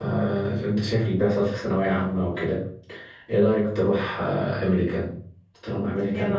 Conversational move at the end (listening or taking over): listening